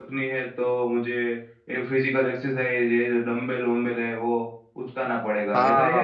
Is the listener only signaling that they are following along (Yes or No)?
No